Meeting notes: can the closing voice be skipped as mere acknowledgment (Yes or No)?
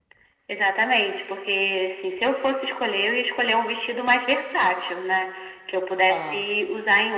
Yes